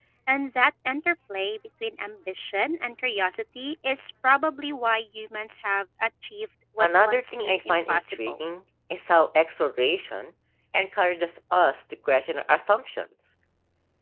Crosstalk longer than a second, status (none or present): present